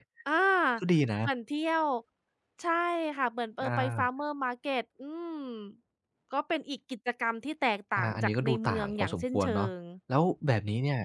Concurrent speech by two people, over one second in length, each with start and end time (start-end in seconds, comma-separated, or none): 8.0-9.7